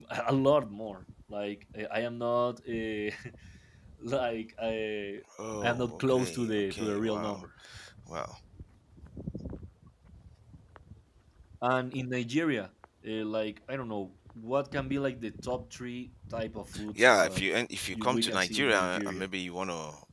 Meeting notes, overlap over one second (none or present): present